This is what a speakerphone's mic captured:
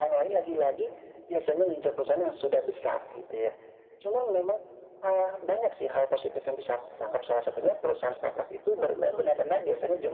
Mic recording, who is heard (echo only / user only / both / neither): both